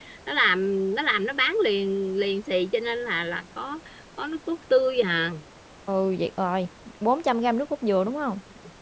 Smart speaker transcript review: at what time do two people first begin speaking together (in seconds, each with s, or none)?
none